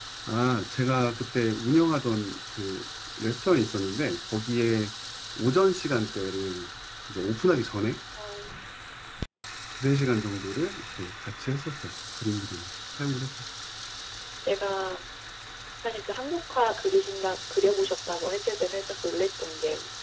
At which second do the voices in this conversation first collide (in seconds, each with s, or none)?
none